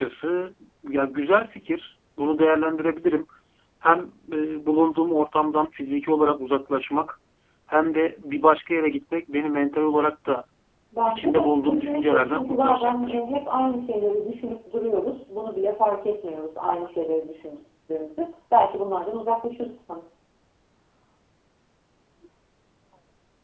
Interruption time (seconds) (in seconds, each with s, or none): 11.1 s